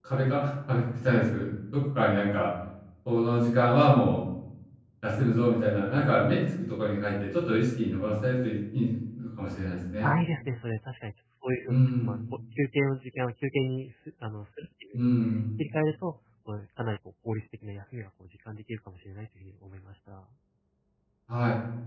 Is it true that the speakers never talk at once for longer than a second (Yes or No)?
Yes